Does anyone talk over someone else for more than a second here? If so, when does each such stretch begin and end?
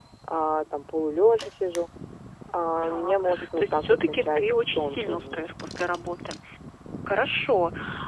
2.8-5.4

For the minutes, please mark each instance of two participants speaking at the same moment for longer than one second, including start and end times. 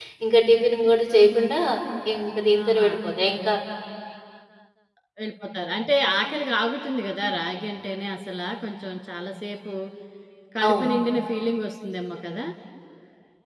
none

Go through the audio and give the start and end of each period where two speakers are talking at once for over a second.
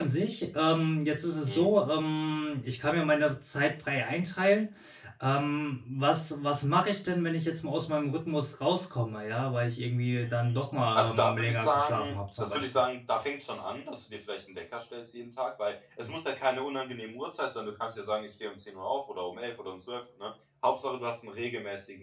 10.9-12.8

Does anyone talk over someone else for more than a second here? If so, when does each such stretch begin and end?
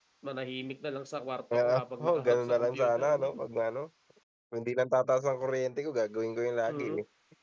1.5-3.2

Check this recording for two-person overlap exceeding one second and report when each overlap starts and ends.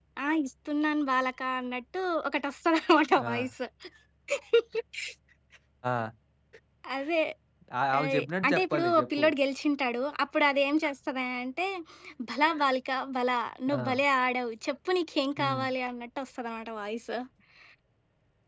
8.0-9.2

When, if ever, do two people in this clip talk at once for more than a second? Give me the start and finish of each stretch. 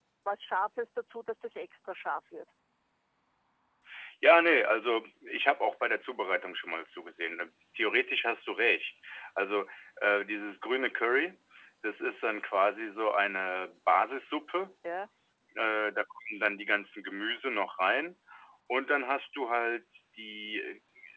none

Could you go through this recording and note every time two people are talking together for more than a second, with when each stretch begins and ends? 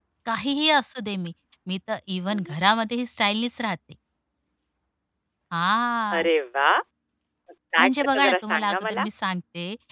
7.8-9.1

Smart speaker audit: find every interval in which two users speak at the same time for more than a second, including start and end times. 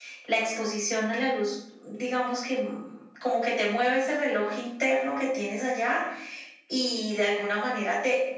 none

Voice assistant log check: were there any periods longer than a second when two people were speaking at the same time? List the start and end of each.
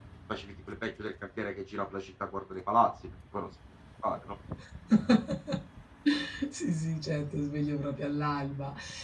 none

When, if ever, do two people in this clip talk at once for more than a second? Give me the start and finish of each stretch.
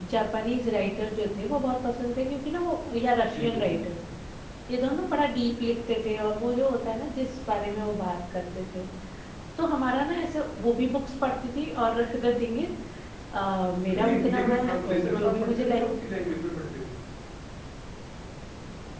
13.9-15.8

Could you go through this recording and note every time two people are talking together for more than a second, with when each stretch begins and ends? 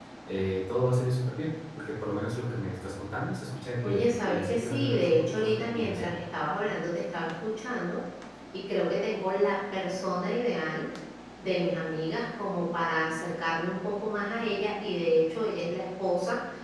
3.8-6.1

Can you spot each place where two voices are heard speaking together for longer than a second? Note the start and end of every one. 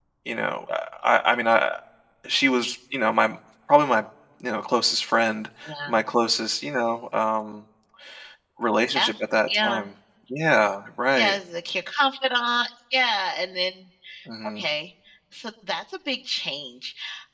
none

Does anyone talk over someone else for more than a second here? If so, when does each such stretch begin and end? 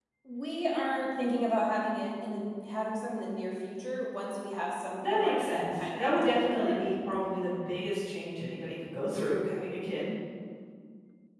5.1-6.9

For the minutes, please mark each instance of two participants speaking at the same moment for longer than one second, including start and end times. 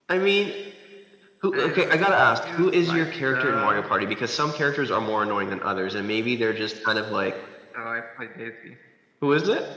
2.6-3.8

